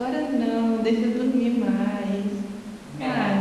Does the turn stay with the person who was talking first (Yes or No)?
No